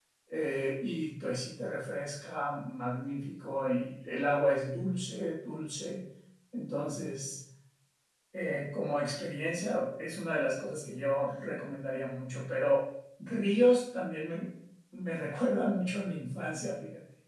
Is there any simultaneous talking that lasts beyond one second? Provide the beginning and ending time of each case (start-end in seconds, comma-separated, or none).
none